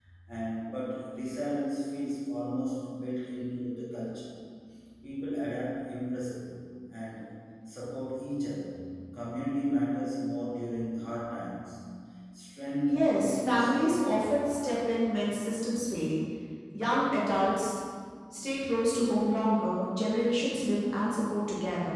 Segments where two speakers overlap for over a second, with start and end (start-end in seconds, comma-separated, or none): 12.9-14.3